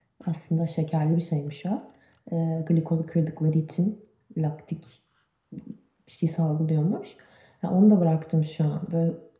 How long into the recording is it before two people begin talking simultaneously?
none

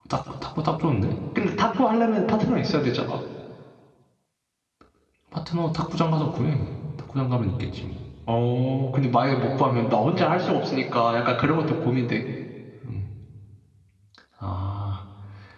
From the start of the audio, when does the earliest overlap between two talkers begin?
none

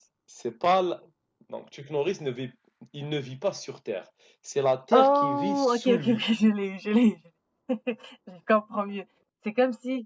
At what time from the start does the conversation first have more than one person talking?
5 s

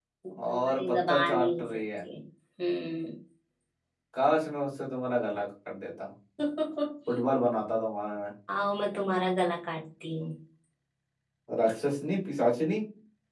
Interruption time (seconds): 1 s

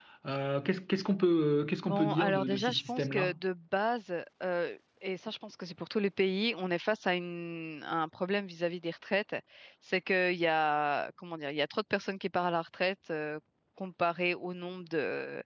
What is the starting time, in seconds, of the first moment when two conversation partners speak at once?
2 s

